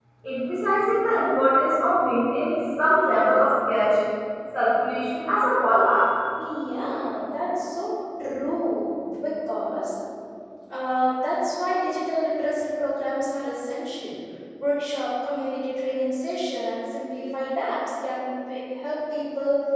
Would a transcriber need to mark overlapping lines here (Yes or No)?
No